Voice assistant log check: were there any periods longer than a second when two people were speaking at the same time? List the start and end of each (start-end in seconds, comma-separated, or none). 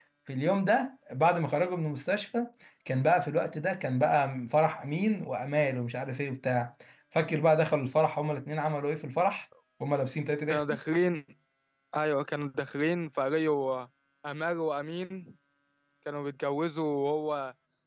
none